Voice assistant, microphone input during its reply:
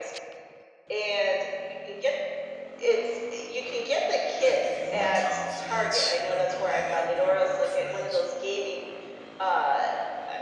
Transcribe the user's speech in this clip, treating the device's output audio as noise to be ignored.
if, if you want confidence, you know, go hang out with your work friends.

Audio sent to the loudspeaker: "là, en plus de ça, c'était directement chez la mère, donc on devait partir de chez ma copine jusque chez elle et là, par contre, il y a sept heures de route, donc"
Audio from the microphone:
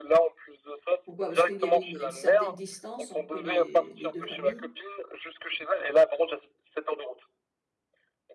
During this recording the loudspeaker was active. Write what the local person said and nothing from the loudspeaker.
Pourquoi? Parce qu'il y avait une une certaine distance entre les les 2 familles?

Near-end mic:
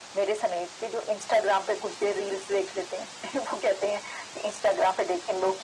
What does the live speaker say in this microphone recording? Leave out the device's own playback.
none

